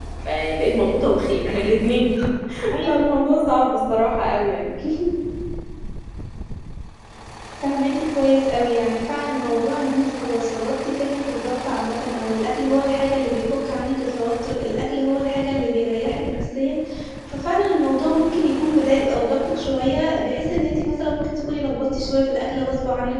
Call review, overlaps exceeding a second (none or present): none